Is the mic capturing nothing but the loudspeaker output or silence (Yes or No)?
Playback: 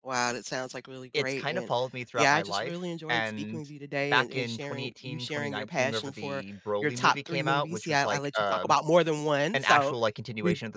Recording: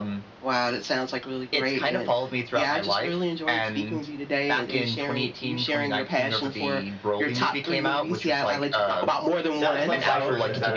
No